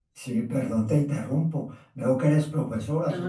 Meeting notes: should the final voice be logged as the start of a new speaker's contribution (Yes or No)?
No